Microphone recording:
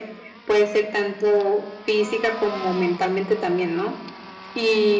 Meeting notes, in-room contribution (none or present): none